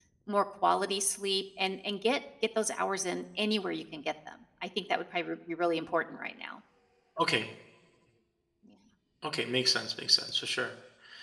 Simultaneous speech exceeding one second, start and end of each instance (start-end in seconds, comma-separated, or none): none